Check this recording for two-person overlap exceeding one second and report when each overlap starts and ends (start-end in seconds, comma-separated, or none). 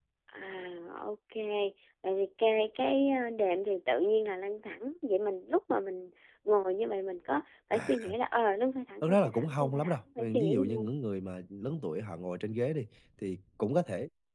9.0-10.9